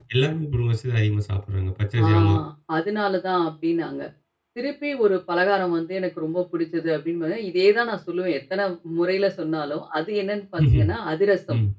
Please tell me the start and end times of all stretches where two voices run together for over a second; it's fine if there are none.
none

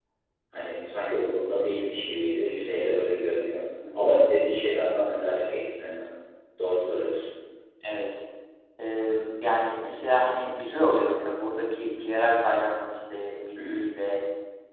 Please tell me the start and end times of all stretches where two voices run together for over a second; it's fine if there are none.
none

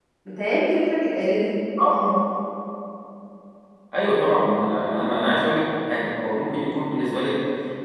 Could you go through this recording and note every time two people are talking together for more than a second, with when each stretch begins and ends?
none

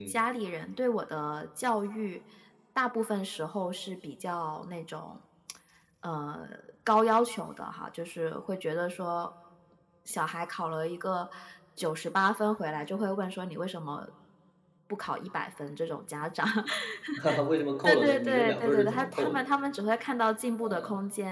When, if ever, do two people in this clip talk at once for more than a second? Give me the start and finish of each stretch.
17.8-19.4

